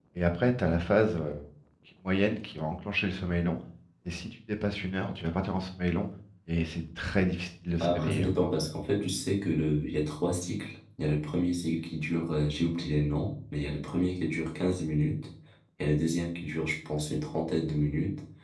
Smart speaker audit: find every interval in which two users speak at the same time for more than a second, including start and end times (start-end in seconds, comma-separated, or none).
none